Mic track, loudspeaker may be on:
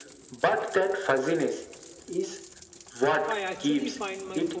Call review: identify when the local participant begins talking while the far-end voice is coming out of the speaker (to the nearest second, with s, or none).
3 s